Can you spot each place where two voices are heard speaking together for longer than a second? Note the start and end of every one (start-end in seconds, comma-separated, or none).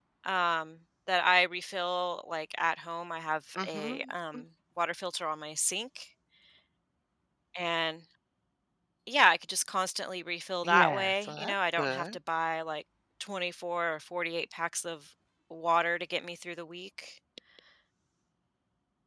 10.6-12.0